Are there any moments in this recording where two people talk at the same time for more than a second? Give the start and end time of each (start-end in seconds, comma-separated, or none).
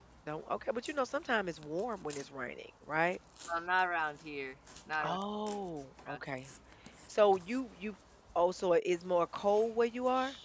none